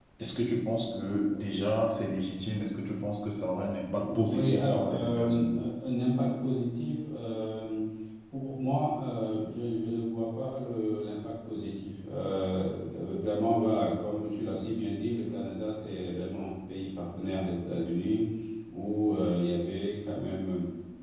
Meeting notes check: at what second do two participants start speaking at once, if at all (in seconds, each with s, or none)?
4.3 s